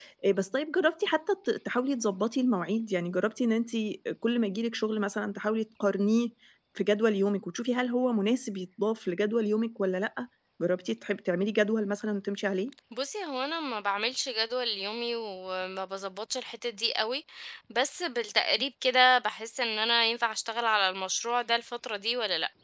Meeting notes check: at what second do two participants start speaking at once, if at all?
none

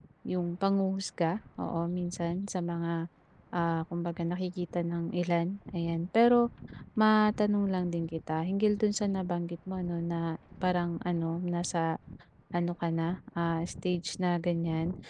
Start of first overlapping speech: none

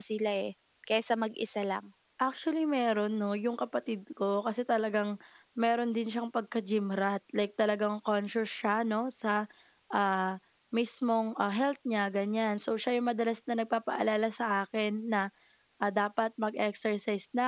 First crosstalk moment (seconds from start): none

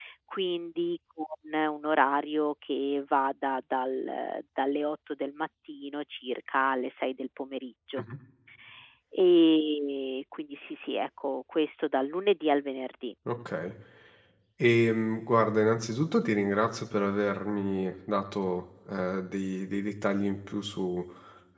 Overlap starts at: none

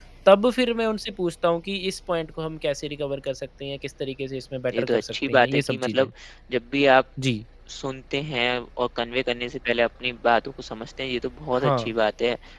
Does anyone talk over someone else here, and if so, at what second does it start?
5 s

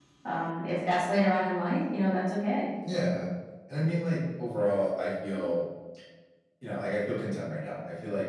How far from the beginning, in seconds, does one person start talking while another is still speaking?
none

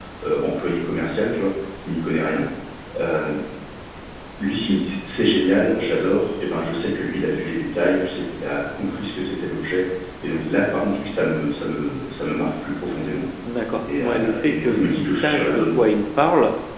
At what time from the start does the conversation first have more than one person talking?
14 s

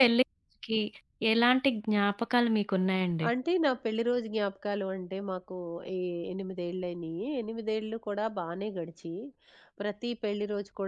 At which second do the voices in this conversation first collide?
none

